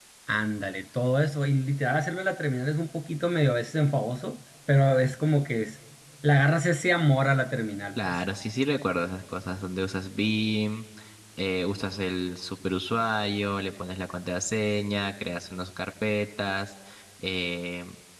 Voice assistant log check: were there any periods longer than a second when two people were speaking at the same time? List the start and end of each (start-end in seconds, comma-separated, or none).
none